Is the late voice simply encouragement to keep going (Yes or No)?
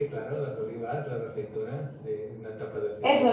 No